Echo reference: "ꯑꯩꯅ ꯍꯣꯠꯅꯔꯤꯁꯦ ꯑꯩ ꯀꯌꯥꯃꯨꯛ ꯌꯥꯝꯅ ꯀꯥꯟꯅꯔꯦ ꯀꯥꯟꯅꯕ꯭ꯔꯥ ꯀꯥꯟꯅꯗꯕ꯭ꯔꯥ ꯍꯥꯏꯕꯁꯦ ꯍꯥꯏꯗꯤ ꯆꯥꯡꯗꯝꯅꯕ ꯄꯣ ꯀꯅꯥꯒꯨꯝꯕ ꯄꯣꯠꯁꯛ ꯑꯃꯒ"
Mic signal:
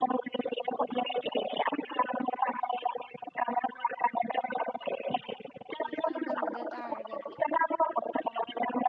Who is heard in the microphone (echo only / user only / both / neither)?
both